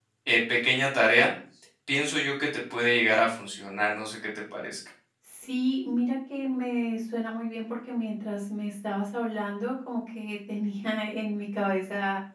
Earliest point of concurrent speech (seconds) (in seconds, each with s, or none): none